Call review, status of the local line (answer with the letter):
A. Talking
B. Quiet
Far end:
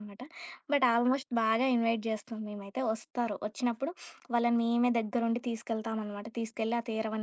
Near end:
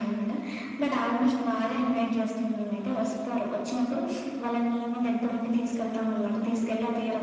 B